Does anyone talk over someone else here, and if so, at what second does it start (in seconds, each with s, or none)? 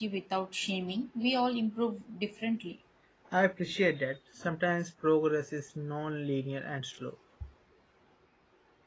none